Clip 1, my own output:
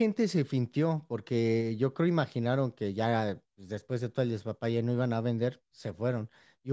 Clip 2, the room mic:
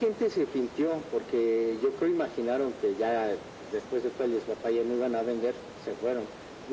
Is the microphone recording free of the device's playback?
No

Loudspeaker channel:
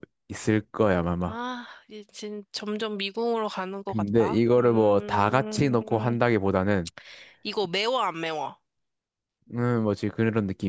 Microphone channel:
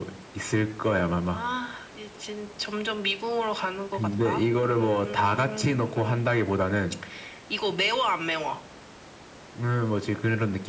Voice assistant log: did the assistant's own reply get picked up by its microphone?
Yes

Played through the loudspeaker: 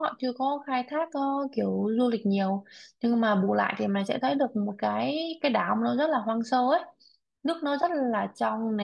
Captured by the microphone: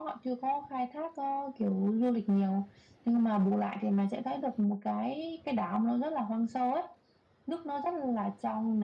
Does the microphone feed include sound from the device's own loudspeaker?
Yes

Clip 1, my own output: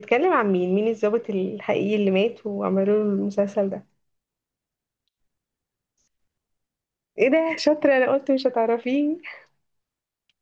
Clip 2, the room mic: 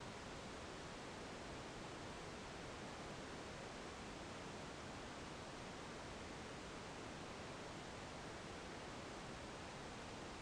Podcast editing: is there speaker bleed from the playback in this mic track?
No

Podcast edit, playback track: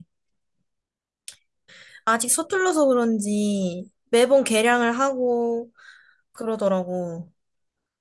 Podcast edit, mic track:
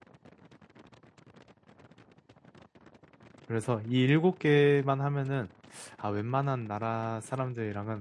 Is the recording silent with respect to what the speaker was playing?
Yes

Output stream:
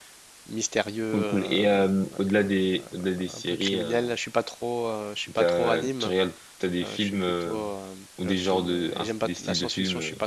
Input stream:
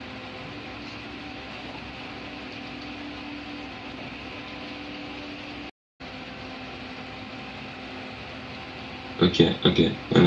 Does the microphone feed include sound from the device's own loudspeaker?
No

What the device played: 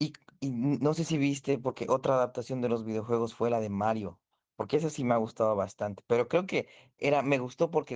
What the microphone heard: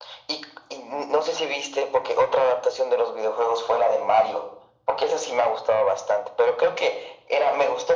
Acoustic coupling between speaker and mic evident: Yes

